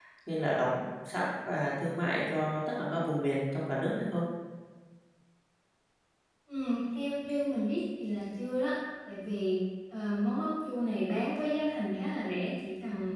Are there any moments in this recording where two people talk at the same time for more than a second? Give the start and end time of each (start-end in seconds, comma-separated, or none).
none